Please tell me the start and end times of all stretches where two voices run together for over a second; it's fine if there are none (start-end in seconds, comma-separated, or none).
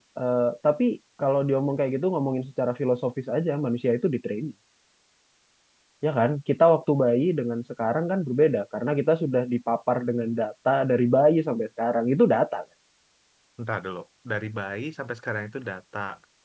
none